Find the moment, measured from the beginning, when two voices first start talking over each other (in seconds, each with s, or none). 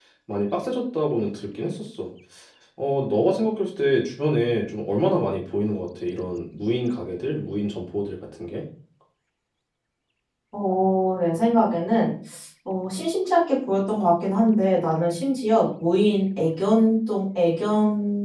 none